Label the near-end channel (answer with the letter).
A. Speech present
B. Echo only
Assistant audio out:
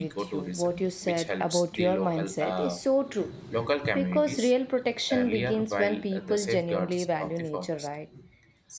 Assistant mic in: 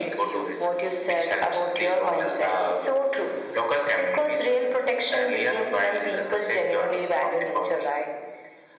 B